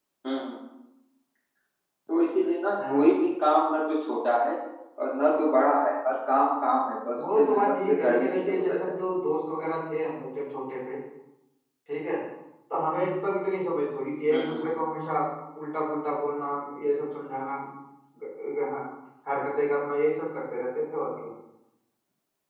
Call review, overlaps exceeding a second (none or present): present